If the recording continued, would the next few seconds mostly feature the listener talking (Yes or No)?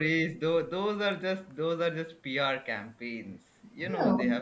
No